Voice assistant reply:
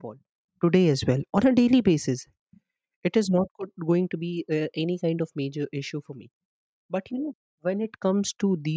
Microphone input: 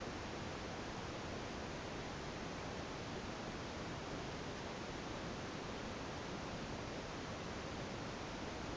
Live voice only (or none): none